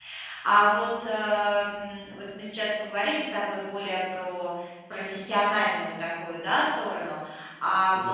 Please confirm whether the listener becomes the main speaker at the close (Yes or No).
No